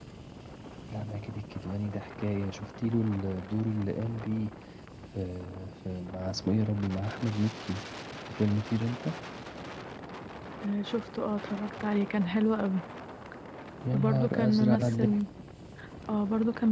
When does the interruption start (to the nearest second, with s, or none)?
14 s